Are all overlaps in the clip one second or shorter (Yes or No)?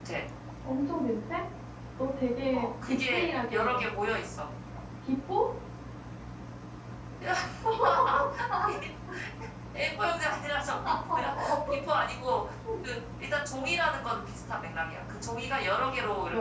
No